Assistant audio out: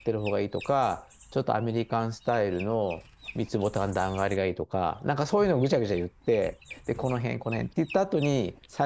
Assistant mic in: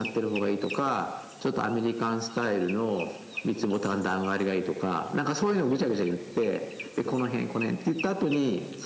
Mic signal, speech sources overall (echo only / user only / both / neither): echo only